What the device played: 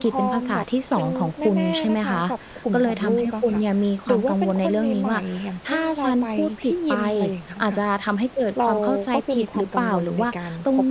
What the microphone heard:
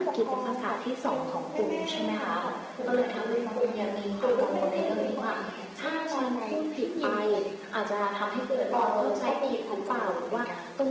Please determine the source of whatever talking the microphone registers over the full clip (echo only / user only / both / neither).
echo only